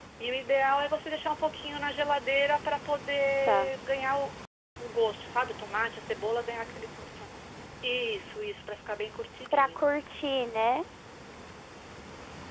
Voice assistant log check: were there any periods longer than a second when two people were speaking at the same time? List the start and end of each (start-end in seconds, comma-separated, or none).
none